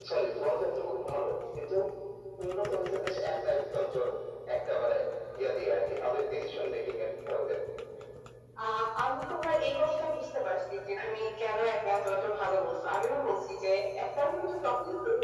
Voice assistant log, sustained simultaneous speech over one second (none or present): none